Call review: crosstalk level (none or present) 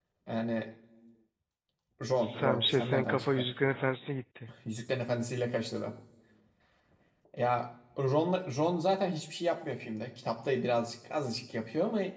present